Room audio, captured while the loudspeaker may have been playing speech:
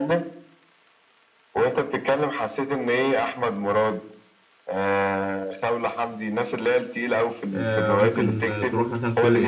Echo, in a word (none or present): present